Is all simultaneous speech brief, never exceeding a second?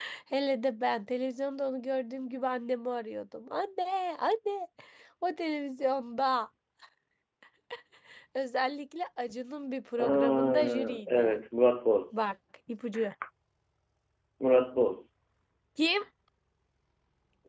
No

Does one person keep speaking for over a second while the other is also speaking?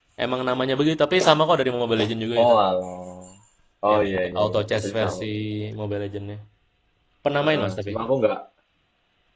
Yes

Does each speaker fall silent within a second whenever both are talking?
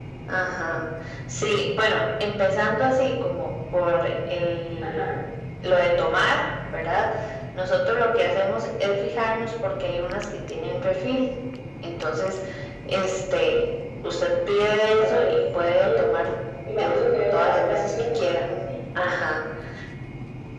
No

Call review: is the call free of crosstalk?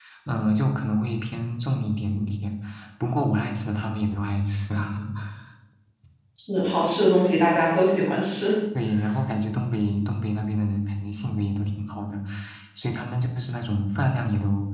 Yes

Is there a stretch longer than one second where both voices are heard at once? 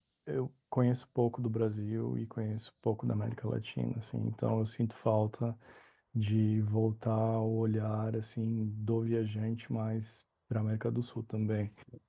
No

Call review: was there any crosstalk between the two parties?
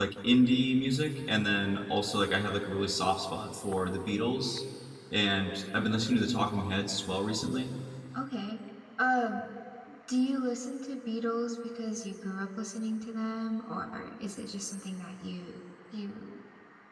No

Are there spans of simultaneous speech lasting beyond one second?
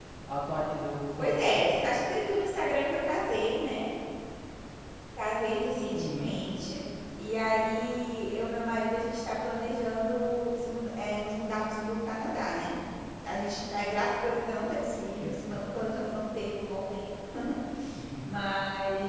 No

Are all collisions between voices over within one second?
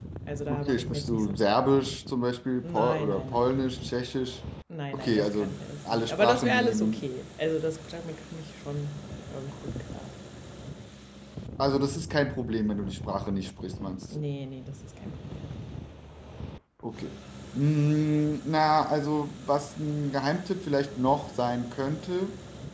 No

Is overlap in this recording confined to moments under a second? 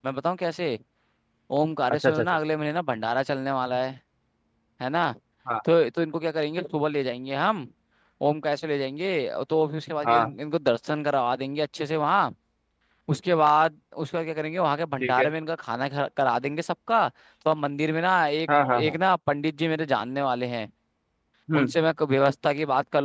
Yes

